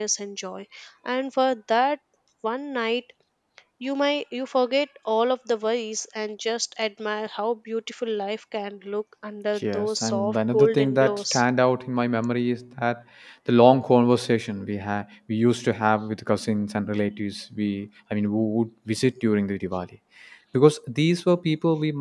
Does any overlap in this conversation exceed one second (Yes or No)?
Yes